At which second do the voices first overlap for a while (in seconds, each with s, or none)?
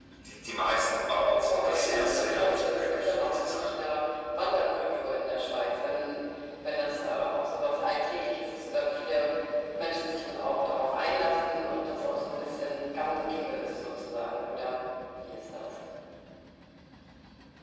1.5 s